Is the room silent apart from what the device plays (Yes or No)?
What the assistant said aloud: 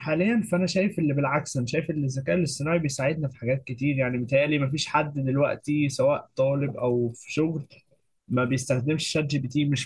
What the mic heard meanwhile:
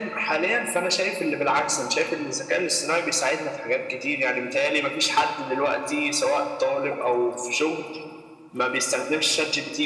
Yes